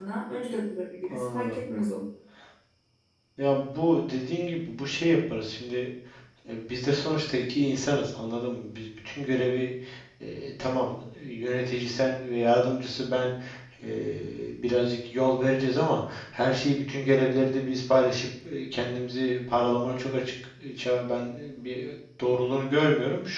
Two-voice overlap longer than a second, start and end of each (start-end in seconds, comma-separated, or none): none